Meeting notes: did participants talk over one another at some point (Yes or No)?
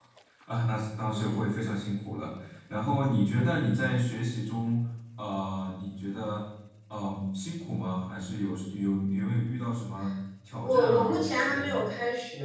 Yes